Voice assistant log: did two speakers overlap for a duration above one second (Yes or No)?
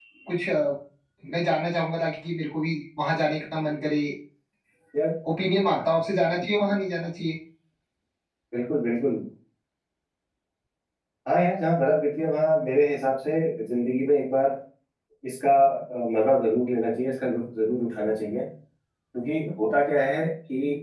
No